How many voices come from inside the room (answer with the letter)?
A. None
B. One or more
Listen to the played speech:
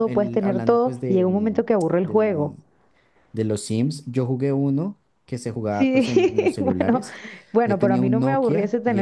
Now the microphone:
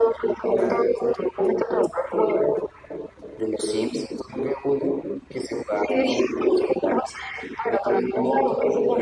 A